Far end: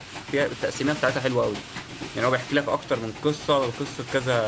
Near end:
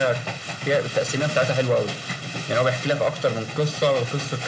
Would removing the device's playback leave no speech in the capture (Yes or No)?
Yes